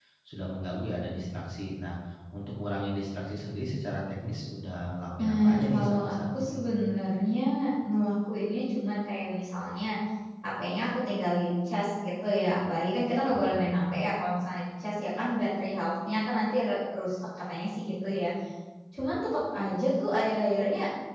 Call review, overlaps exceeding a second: present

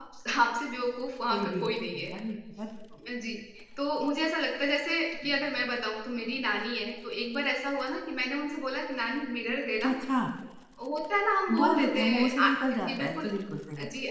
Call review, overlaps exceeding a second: present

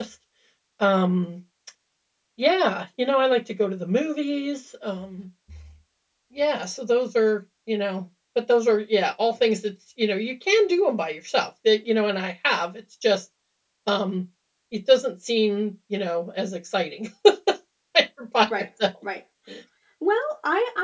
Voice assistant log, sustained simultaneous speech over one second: none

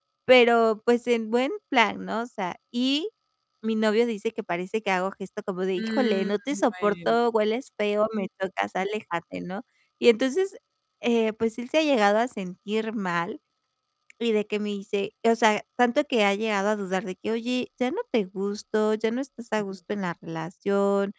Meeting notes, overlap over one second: present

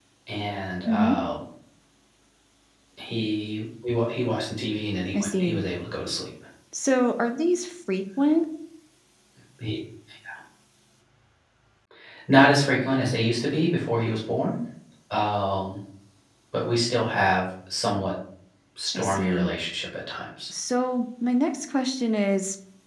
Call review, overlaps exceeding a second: none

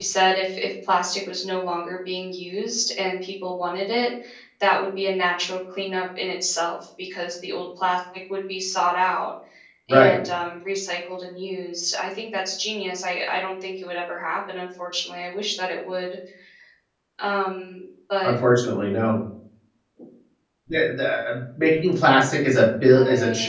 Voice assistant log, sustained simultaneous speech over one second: none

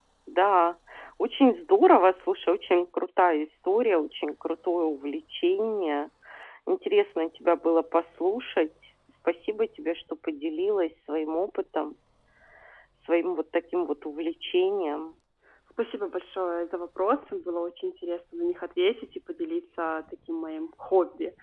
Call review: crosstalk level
none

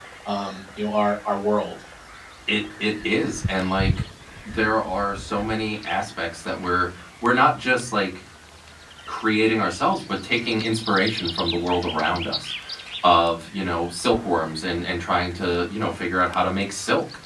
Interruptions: none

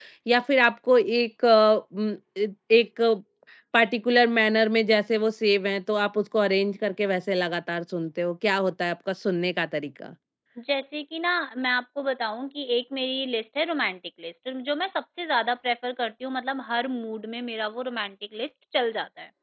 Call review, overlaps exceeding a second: none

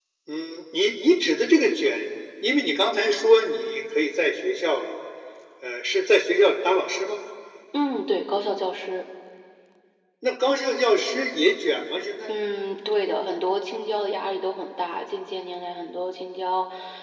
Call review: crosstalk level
none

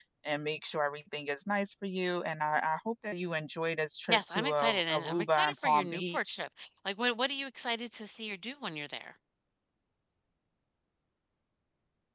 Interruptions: present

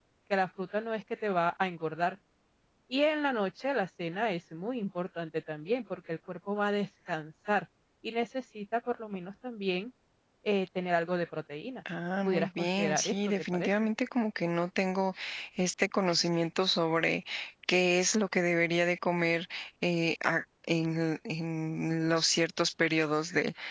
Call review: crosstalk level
present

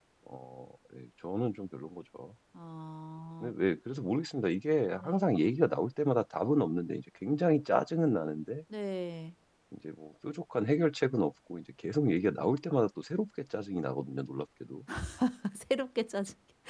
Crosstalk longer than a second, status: none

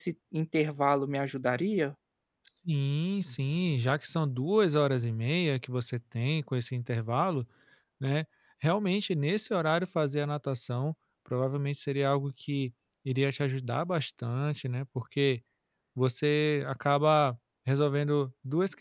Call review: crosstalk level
none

